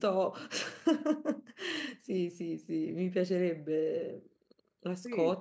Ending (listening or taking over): taking over